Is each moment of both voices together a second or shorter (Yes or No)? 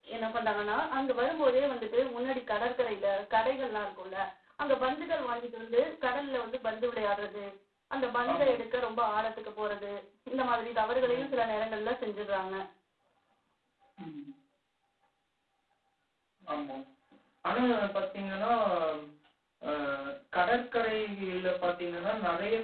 Yes